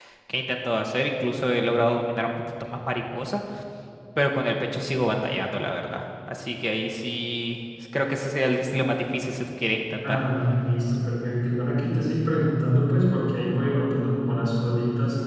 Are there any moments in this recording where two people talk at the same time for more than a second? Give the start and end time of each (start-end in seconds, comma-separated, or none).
none